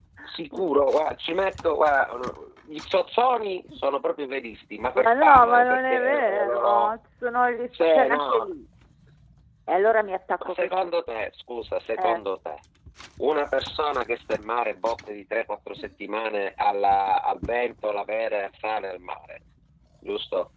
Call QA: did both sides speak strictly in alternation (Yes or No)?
No